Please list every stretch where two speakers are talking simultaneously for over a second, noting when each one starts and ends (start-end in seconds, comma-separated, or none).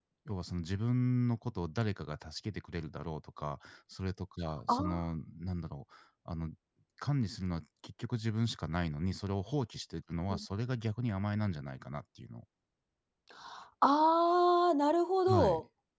none